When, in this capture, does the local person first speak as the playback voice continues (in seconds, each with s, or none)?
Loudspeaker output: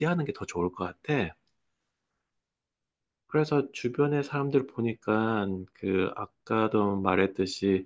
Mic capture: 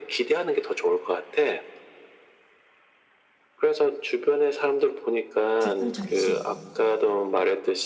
5.6 s